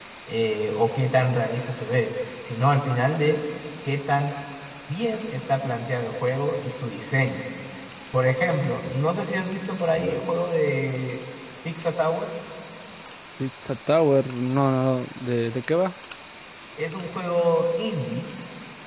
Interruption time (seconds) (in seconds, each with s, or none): none